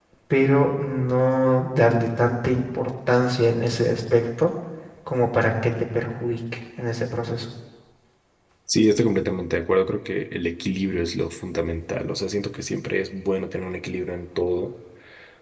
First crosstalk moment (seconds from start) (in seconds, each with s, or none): none